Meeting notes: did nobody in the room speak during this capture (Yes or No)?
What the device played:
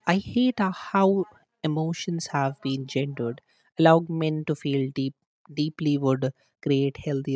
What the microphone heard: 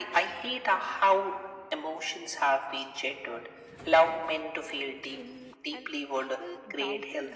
No